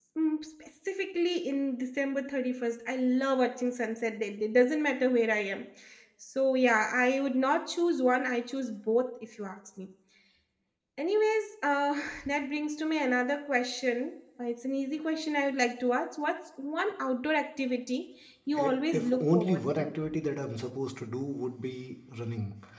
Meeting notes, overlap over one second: present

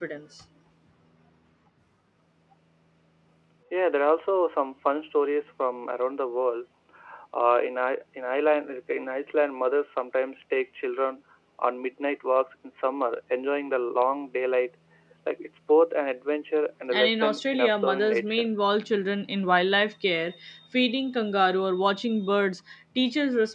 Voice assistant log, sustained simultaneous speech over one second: present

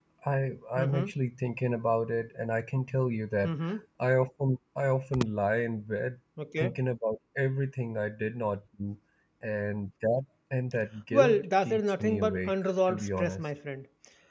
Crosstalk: present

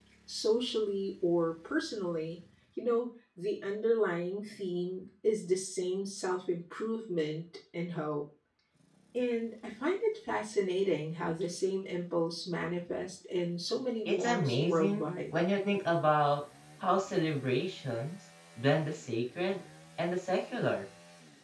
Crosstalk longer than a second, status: present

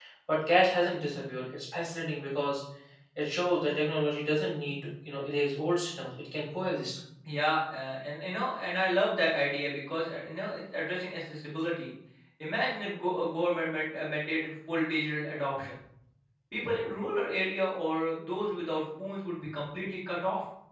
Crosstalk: none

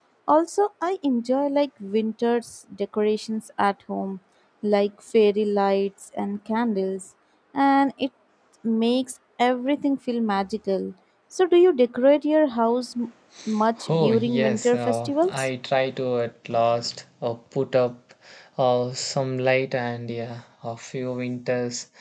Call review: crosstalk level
present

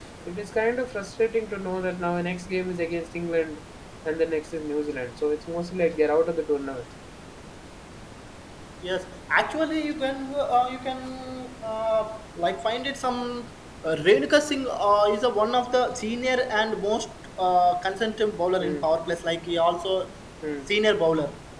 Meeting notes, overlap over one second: none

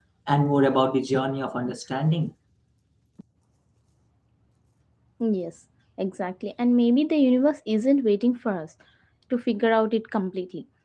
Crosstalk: none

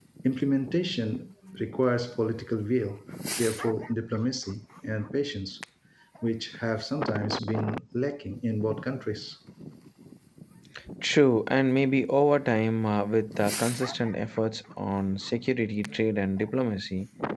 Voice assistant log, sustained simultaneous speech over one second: none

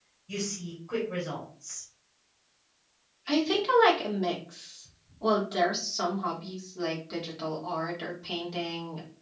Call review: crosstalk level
none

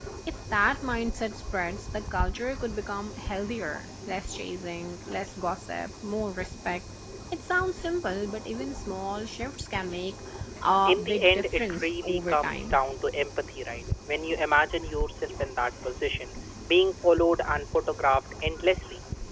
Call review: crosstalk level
present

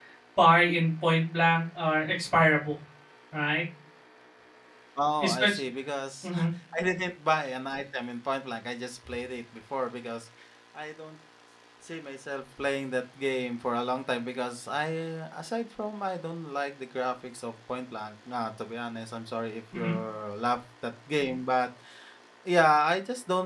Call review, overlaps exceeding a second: none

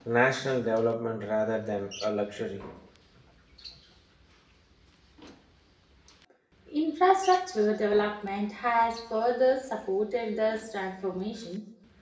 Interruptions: none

